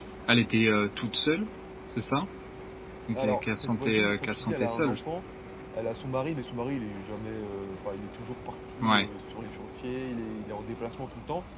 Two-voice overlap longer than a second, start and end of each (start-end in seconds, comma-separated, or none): 3.1-5.0